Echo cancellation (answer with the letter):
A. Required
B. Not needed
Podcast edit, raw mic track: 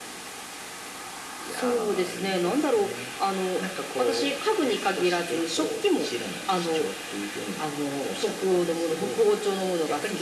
A